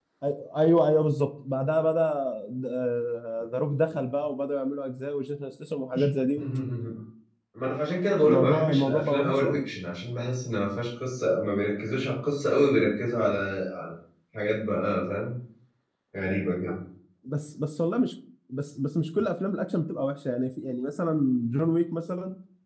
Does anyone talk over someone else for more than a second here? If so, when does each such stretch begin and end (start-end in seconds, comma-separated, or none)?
8.2-9.6